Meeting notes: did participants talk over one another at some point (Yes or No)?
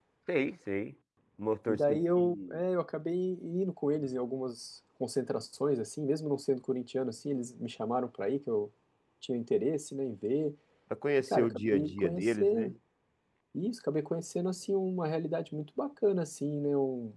Yes